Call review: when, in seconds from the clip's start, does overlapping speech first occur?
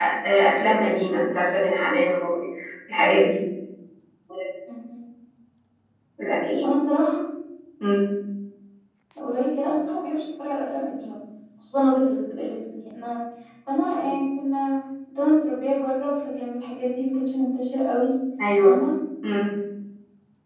none

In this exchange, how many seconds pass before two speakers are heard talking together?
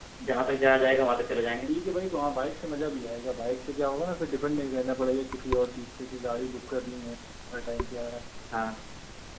none

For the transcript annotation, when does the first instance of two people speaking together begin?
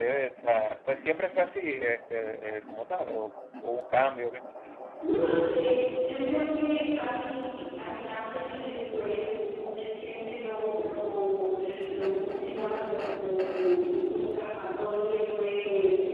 none

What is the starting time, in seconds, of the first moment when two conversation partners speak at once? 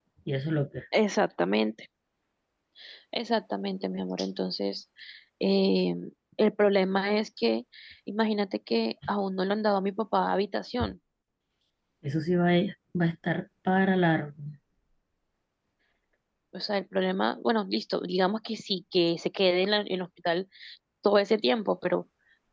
none

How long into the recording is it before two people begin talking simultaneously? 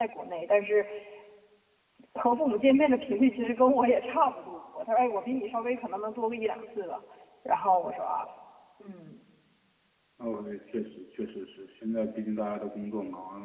none

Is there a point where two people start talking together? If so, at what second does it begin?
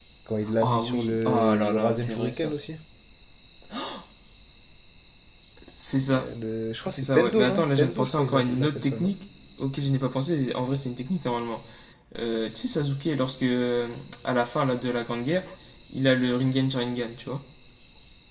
0.6 s

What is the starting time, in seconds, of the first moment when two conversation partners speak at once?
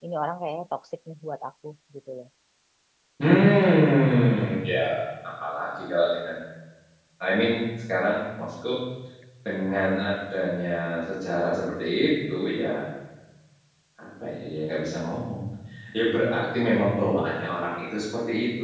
none

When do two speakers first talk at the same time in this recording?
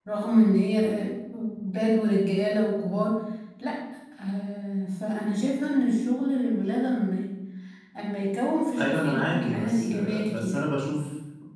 8.8 s

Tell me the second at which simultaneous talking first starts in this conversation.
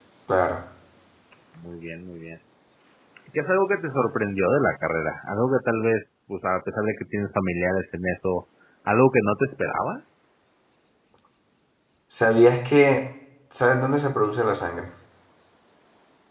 none

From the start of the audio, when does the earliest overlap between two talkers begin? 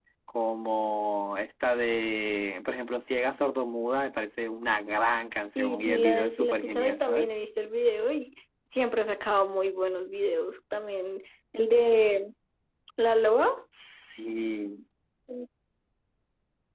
5.5 s

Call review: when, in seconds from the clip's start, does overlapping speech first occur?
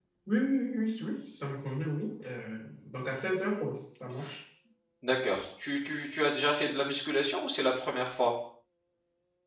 none

